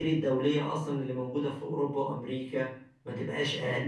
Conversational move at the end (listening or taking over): taking over